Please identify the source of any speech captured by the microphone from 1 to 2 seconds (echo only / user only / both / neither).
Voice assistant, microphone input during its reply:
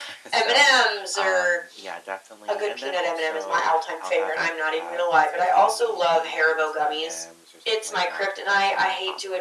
both